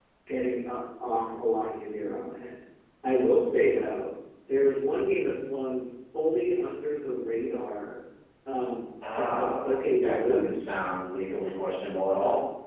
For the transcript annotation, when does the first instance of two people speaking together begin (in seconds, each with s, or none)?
9.2 s